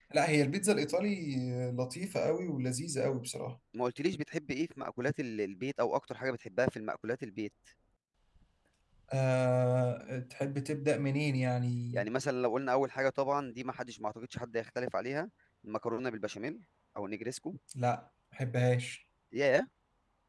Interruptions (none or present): none